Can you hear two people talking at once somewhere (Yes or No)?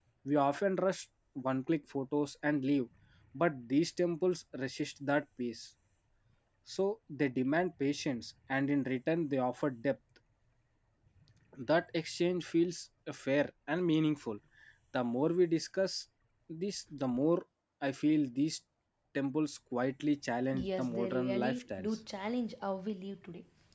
Yes